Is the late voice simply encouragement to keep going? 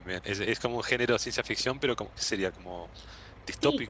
No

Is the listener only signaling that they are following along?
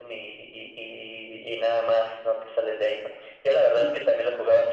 Yes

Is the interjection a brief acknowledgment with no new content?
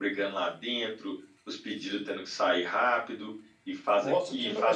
No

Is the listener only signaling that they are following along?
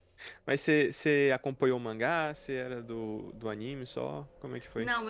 No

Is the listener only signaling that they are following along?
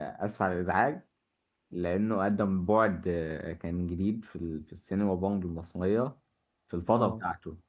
Yes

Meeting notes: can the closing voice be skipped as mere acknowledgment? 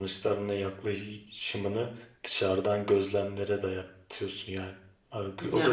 No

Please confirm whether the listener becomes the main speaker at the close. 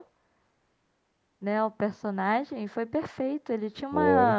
No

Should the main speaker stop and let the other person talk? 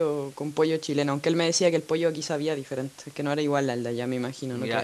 Yes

